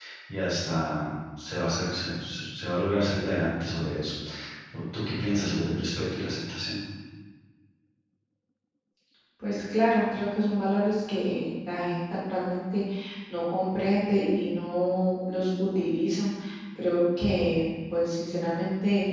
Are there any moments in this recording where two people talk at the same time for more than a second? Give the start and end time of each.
none

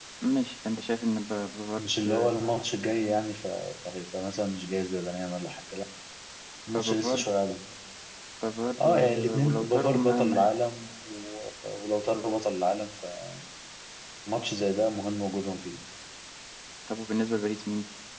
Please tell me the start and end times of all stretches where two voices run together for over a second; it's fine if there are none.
8.8-10.3

